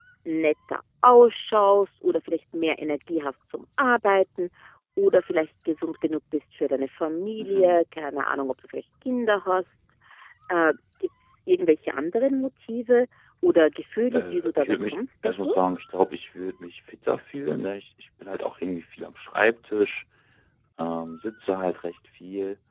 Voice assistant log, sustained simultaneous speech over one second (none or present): present